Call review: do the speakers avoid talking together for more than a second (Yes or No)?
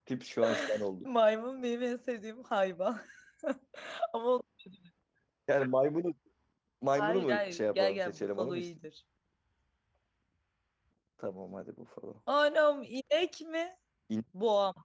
No